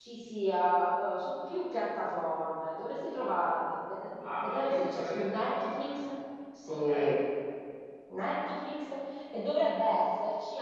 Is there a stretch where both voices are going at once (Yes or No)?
Yes